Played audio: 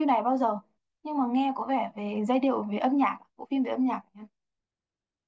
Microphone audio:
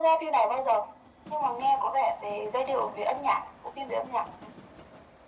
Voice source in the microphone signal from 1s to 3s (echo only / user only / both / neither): echo only